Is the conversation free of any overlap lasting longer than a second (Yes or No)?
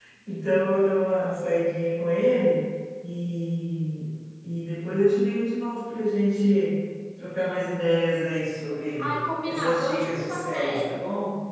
No